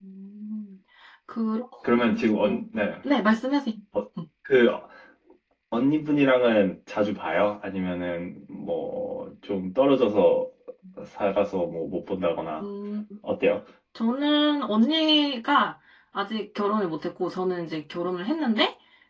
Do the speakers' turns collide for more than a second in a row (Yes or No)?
No